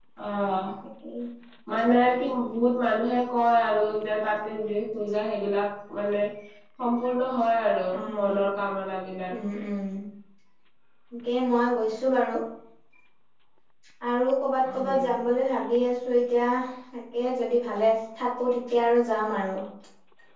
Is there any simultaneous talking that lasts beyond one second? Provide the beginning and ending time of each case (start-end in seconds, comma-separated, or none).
none